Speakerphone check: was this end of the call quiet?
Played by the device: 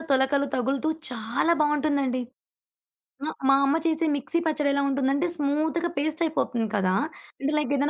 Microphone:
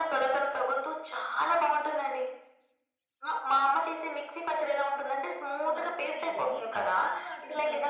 No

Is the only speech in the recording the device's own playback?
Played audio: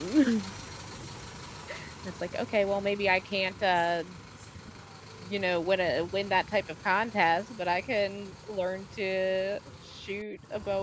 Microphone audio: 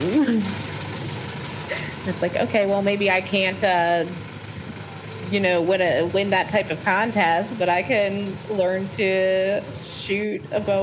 Yes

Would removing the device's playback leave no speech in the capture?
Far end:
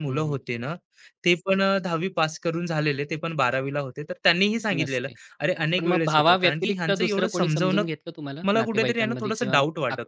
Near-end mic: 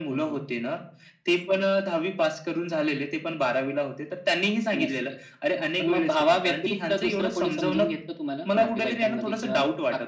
Yes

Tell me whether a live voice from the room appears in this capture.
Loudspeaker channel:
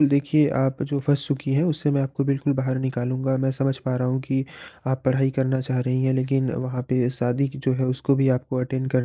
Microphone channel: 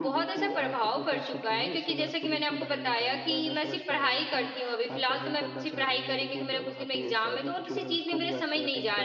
Yes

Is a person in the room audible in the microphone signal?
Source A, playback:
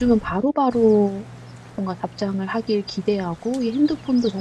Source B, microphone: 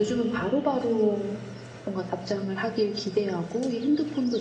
No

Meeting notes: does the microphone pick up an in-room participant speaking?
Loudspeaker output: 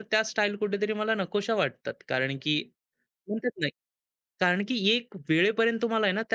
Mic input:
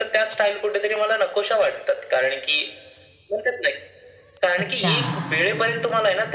Yes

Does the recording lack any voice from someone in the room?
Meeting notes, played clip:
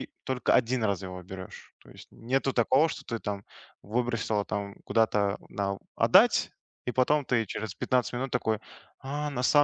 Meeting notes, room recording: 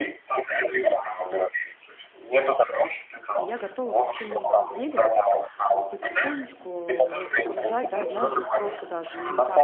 No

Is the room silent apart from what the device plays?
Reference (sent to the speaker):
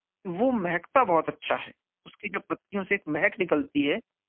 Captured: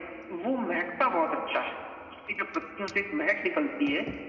Yes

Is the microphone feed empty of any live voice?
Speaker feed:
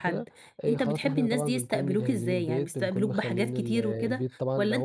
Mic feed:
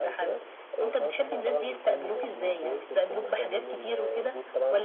Yes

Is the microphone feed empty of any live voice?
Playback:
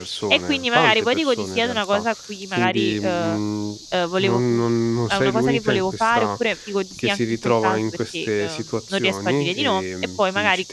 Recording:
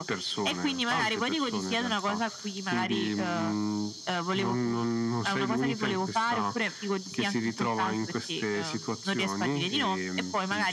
Yes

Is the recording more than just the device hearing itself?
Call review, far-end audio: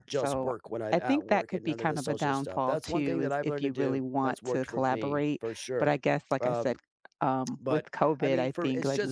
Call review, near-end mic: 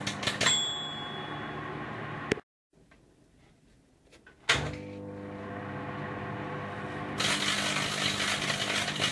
No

